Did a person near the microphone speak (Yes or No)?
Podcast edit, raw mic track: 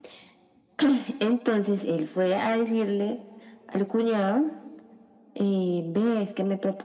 No